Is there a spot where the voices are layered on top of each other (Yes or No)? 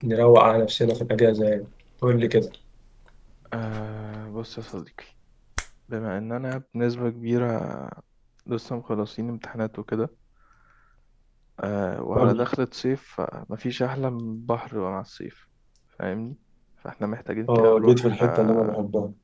Yes